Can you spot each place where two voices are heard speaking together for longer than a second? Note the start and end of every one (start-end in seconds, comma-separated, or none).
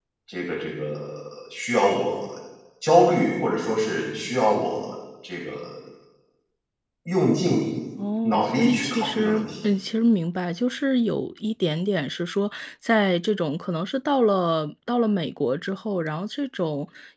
8.2-9.5